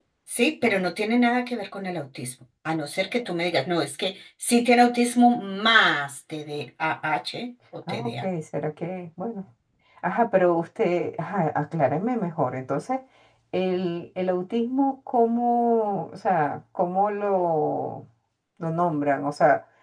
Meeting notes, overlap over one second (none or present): none